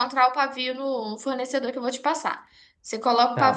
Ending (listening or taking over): taking over